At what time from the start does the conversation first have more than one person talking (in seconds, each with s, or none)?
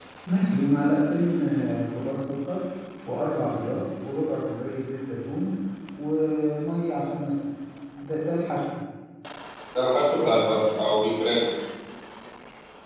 none